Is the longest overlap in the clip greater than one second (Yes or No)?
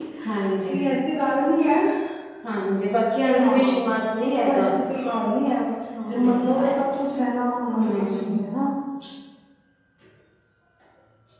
No